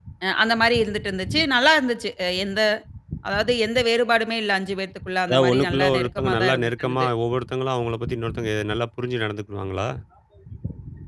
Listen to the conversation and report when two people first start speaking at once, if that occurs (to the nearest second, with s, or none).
5 s